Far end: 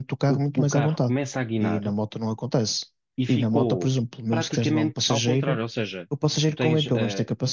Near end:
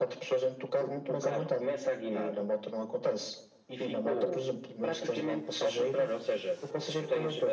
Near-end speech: none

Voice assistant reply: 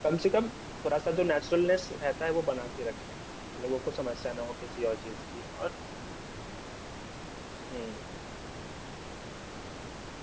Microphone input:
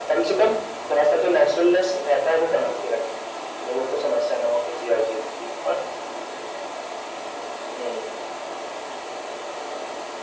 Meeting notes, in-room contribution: none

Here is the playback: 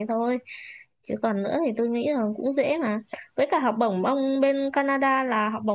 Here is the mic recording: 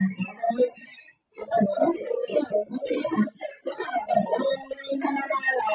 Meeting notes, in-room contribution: none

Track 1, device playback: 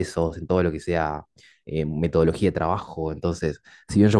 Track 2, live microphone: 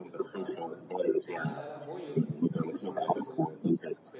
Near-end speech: present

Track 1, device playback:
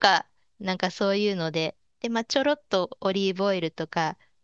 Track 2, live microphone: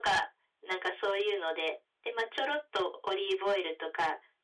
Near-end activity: none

